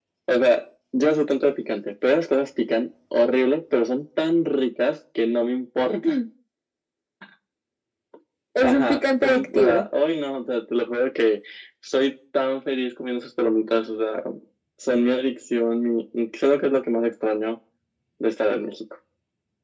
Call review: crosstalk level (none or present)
present